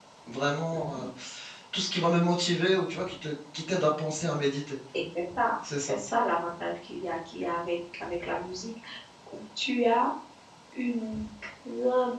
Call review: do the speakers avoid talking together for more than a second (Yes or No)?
Yes